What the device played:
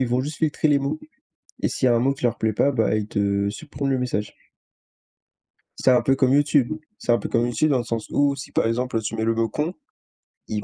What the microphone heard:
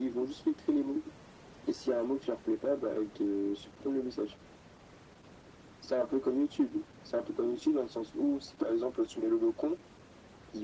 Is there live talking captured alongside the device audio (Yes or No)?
No